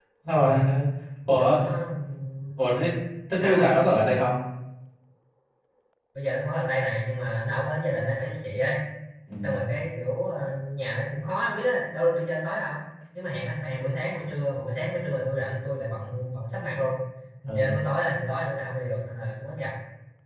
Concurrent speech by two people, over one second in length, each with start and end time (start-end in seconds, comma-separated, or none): none